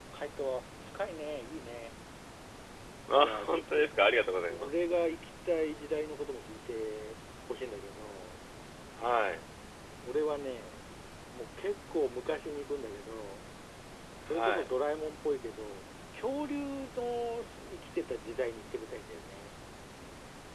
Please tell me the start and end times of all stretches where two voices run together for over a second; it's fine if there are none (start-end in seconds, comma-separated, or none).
3.2-4.7